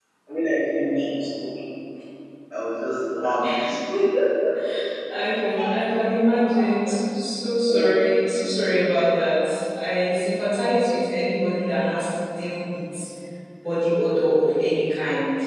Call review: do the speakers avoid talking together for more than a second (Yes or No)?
Yes